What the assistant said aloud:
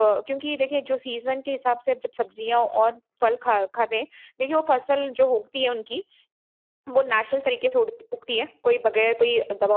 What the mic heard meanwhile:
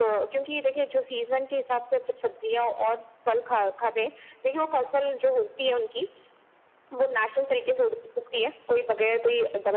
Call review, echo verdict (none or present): present